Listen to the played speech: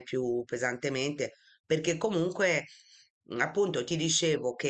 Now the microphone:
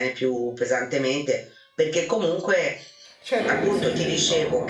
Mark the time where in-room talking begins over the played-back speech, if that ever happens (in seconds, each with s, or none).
3.2 s